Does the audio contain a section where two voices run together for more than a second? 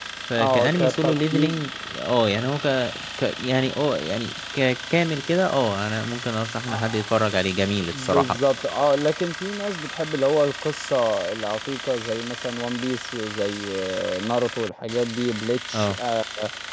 Yes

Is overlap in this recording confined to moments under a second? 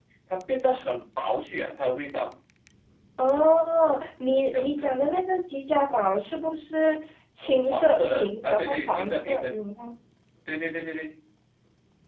No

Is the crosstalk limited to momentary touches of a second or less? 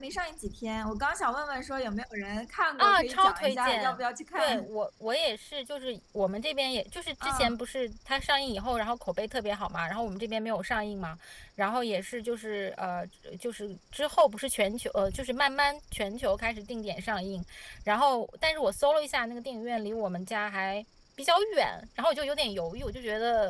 No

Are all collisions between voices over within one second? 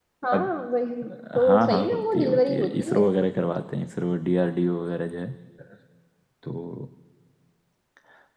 No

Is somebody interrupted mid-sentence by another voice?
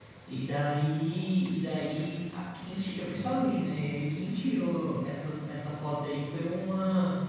No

